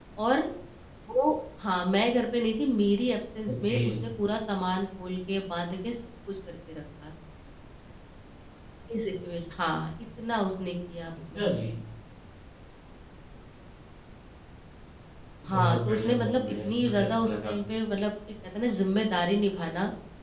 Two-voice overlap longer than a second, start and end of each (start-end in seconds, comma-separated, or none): 15.5-17.5